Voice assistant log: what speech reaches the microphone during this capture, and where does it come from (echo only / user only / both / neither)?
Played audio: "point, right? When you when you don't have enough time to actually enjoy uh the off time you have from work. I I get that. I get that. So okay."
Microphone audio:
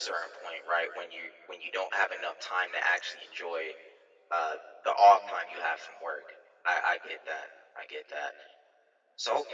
echo only